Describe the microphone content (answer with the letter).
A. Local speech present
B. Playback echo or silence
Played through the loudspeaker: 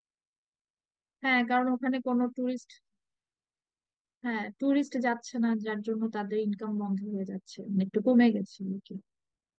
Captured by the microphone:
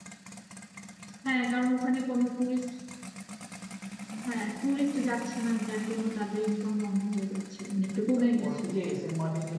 A